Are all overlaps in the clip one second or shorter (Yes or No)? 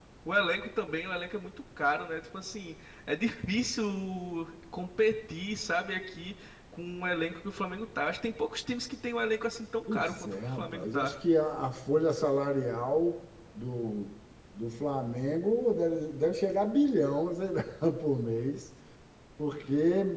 No